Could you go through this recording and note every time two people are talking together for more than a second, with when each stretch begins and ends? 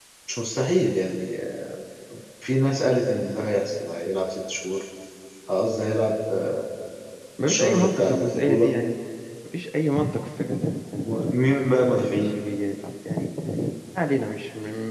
7.4-8.8

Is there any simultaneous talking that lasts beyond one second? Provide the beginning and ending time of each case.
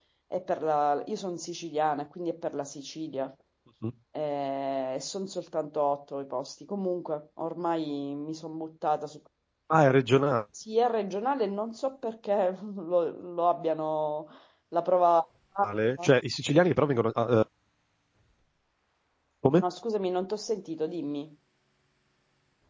none

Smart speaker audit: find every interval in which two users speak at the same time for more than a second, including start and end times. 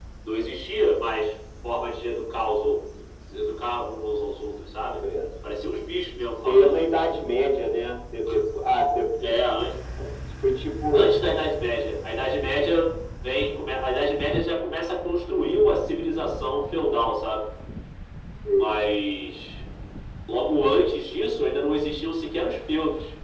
none

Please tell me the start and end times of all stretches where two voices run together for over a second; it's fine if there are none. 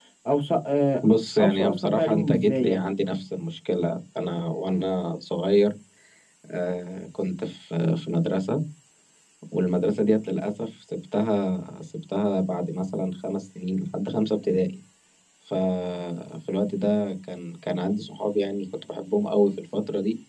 1.4-2.8

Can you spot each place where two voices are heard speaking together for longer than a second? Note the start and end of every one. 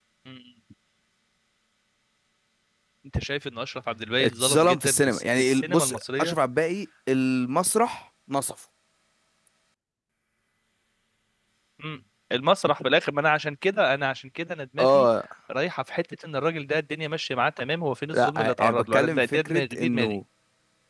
4.2-6.3, 18.1-20.2

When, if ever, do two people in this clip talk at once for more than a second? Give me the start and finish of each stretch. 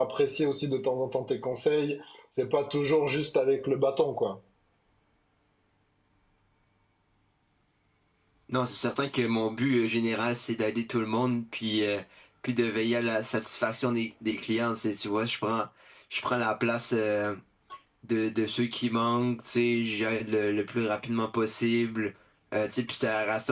none

